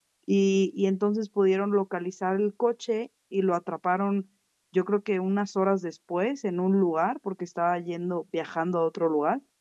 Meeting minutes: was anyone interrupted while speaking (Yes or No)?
No